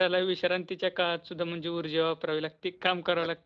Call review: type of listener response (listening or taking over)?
taking over